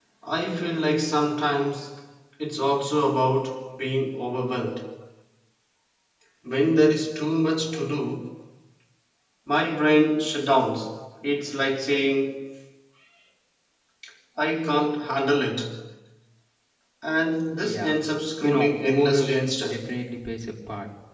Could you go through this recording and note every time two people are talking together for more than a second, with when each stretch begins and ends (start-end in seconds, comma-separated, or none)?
18.4-19.8